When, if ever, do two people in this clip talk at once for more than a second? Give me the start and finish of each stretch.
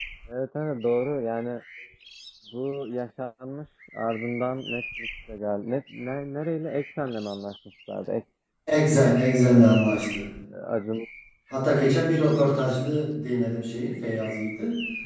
none

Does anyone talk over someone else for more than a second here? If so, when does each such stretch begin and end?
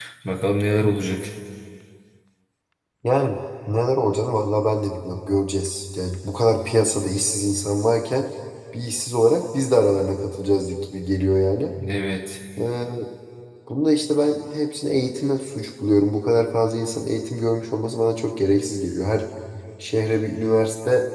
none

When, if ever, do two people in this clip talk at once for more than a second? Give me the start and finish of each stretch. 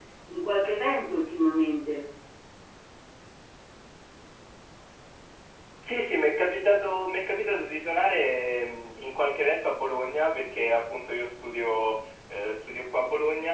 none

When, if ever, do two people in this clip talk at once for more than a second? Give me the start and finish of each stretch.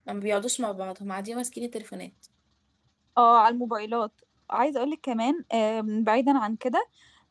none

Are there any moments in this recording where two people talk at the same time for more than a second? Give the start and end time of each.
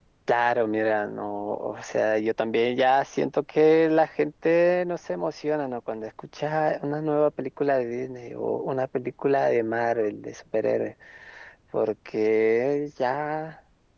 none

